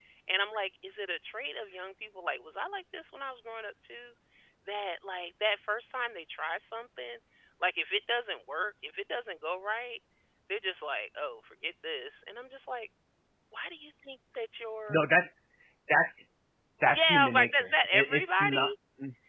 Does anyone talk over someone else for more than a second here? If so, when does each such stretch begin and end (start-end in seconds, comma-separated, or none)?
16.9-18.7